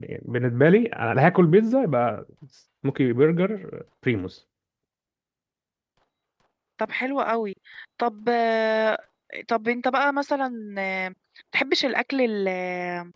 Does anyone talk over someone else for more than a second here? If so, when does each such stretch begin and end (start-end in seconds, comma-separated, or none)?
none